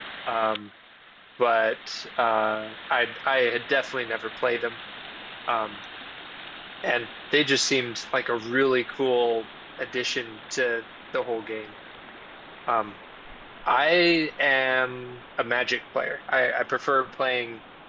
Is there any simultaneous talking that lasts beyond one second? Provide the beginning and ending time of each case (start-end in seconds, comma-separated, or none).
none